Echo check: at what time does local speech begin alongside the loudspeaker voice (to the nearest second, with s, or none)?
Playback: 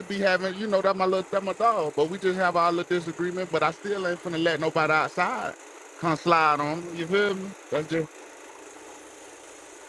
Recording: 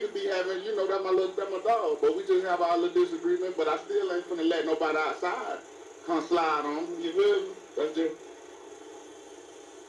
none